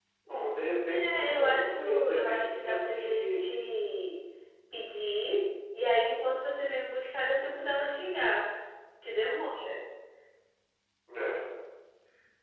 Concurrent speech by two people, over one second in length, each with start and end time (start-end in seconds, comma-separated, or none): 0.9-3.4